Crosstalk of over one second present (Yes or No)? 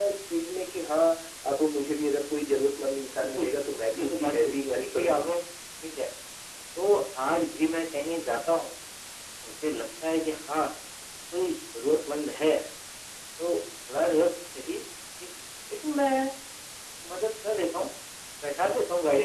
Yes